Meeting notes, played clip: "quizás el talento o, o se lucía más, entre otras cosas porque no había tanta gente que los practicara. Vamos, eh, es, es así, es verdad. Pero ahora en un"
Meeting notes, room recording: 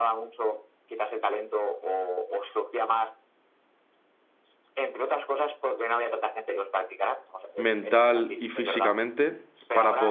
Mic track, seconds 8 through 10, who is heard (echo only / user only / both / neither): both